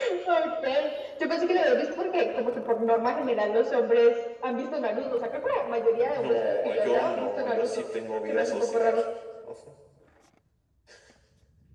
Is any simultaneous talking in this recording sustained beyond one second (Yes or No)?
Yes